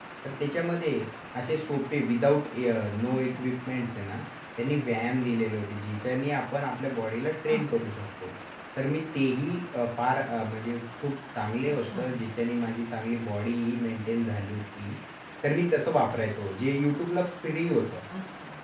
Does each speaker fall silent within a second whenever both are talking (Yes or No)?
Yes